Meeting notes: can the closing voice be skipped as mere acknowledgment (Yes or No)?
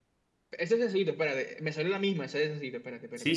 No